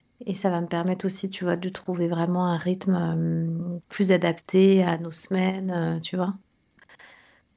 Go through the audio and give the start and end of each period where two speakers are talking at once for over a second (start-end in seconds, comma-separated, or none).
none